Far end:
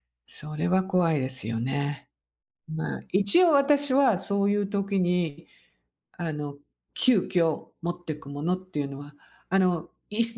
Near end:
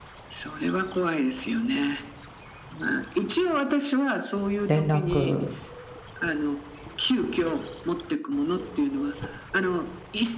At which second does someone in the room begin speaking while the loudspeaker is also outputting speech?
4.7 s

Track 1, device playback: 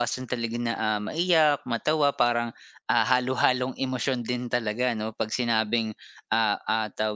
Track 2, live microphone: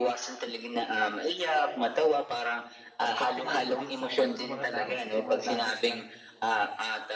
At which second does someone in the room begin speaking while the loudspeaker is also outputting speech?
3.0 s

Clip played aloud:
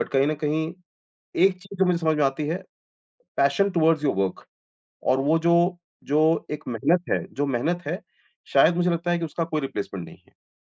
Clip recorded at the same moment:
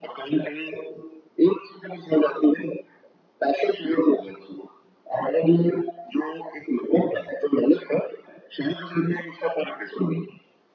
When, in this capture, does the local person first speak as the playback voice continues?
none

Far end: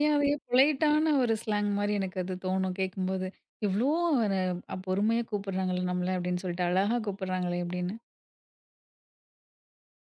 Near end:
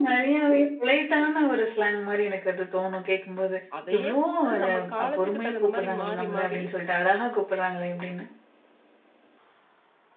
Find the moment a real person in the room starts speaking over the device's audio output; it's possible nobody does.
3.8 s

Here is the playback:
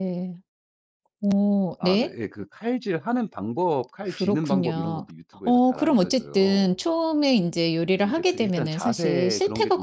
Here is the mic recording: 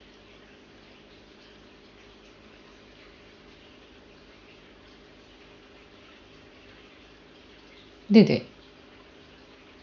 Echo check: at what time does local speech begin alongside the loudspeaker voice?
8.1 s

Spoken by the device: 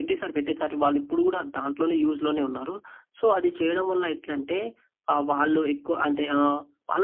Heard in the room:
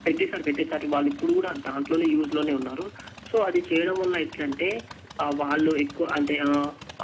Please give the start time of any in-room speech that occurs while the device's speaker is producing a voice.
none

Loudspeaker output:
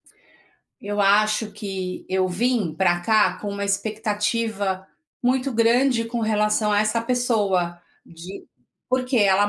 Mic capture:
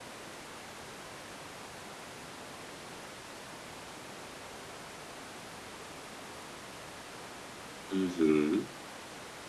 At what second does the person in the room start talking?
7.9 s

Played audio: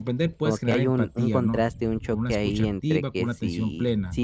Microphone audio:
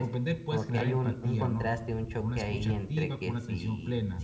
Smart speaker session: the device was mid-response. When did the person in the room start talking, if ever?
none

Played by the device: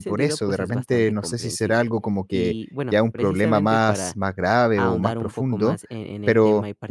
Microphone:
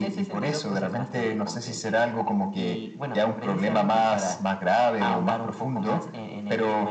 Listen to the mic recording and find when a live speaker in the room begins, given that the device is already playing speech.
none

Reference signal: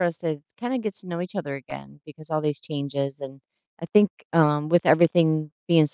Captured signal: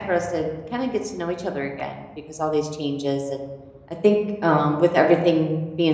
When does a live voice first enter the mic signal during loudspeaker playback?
none

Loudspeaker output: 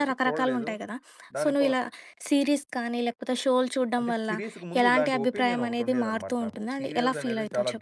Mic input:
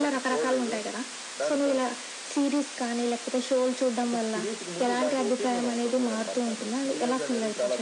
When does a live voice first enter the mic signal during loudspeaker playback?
none

